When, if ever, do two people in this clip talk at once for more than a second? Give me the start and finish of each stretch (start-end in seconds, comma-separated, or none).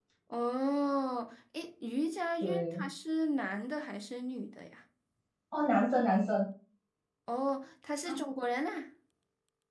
none